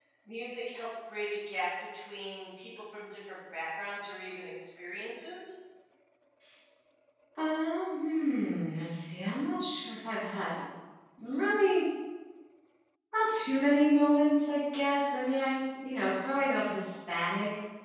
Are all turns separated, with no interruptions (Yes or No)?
Yes